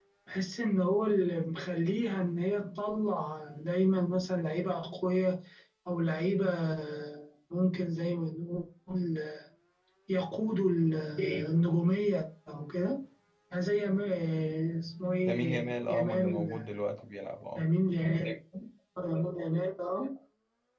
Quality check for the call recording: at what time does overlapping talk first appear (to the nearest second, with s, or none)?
15 s